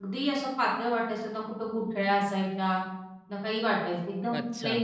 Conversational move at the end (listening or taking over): listening